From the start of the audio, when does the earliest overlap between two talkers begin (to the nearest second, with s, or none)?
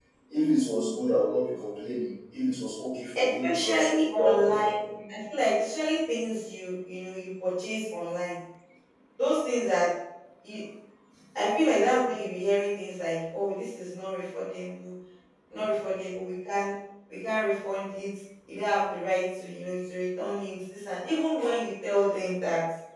3 s